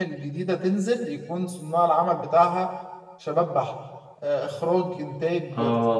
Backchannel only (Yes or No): No